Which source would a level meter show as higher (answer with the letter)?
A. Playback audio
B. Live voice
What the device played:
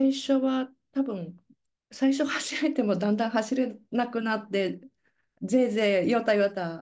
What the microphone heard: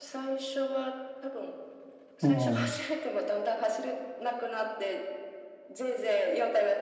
B